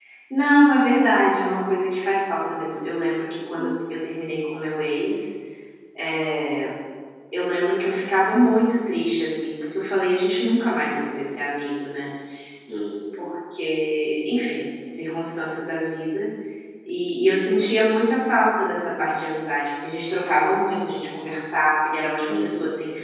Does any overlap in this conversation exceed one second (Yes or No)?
No